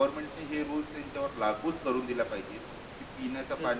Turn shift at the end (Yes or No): No